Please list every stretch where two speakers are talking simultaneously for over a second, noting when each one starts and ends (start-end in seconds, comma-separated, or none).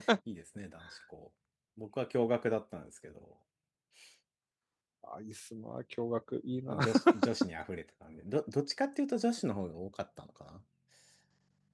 none